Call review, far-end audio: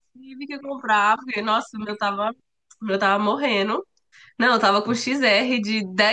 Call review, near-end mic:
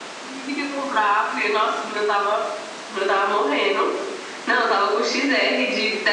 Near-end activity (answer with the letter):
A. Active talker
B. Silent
B